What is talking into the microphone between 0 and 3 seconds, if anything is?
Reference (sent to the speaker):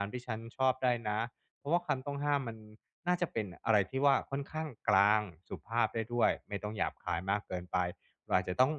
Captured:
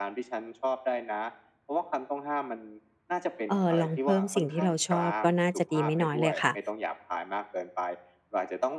echo only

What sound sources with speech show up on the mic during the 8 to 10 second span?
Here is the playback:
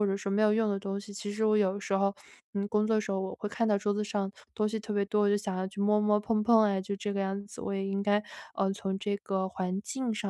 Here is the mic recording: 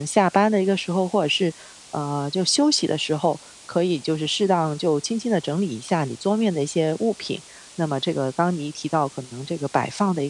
user only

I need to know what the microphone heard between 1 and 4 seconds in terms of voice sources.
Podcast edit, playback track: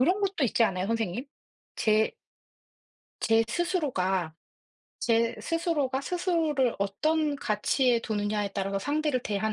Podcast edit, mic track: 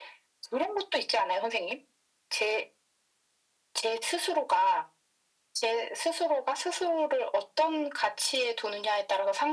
echo only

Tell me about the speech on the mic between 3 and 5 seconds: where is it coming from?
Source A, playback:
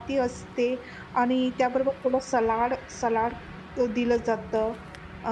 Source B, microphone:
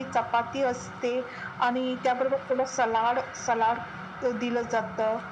echo only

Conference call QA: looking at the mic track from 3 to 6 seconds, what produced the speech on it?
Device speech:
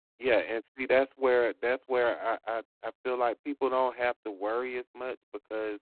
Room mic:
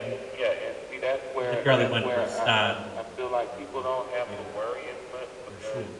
both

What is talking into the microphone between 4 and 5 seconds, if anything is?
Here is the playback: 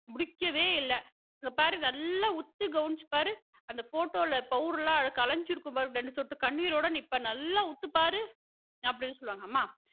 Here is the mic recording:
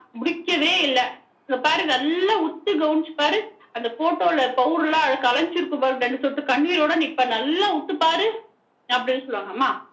echo only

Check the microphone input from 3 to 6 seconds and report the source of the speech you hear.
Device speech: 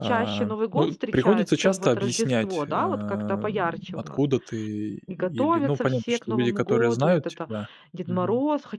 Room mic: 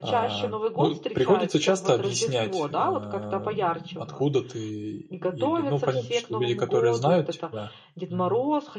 echo only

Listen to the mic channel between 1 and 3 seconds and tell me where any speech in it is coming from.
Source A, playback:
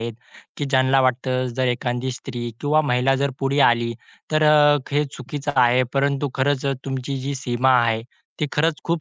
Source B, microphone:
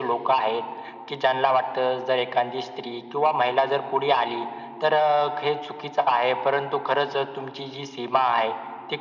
echo only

